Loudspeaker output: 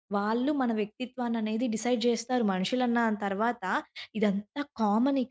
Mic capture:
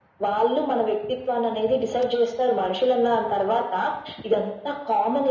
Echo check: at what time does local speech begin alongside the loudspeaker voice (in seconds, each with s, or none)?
none